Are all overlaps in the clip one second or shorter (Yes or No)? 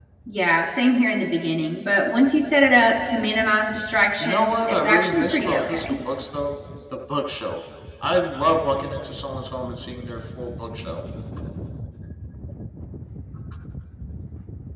No